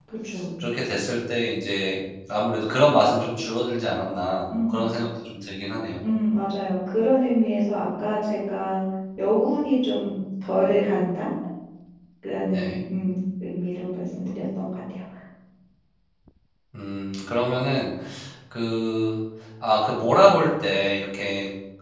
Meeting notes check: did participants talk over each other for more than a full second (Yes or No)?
No